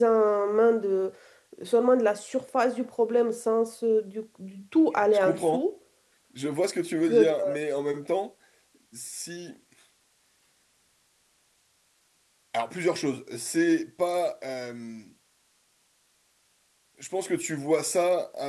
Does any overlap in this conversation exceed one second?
No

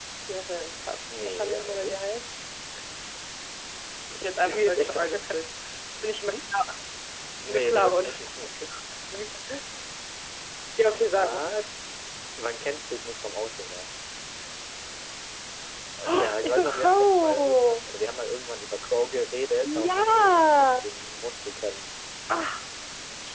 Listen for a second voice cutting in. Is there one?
Yes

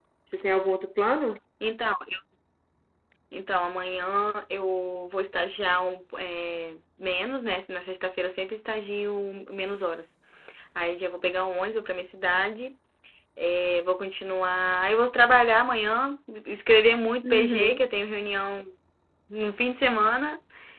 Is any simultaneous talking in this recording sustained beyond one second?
No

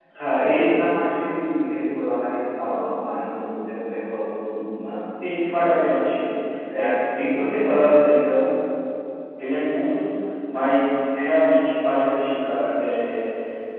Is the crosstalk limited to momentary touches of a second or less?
Yes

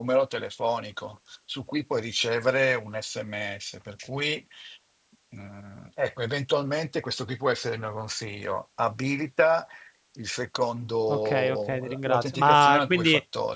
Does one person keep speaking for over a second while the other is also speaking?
Yes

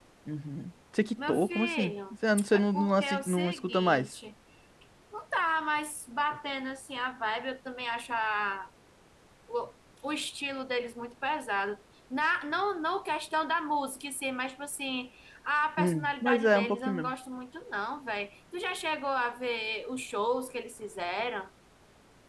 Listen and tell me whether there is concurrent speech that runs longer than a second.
Yes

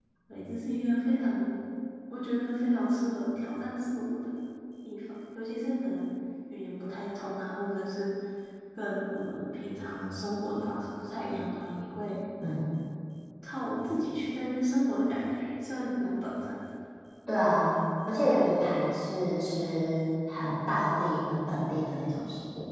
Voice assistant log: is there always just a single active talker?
Yes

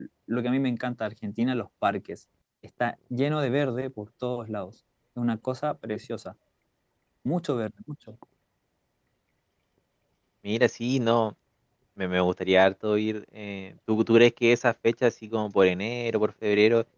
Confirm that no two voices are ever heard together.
Yes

